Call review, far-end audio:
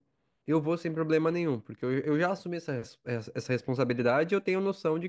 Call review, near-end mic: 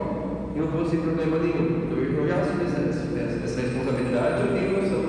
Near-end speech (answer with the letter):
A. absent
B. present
A